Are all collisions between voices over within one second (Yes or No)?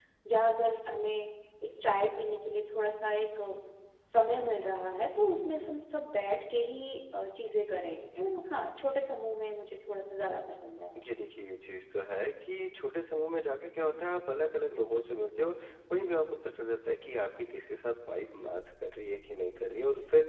Yes